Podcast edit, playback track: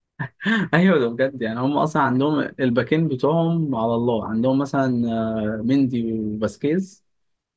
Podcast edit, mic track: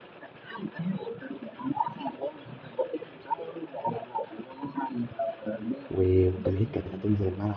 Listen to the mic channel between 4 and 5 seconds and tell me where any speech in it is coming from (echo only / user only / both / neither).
echo only